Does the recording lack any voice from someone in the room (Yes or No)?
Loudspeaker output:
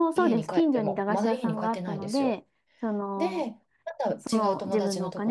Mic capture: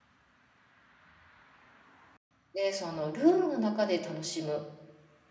No